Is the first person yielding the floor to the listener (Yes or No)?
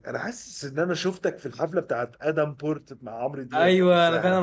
Yes